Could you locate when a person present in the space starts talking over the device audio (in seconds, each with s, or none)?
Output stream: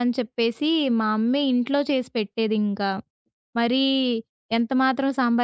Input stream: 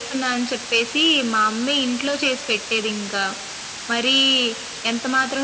none